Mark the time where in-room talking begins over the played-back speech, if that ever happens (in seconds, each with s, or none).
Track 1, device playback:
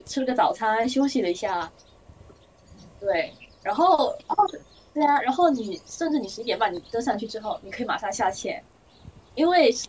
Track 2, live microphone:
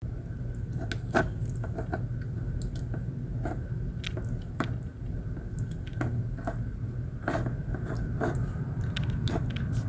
none